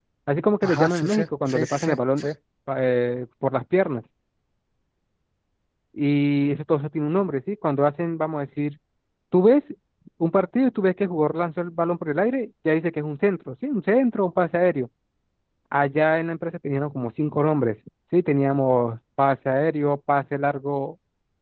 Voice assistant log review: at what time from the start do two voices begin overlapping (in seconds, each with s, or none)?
0.6 s